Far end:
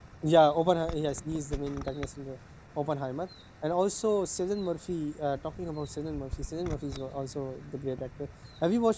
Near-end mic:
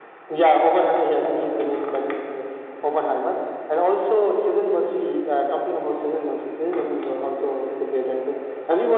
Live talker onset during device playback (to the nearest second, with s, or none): none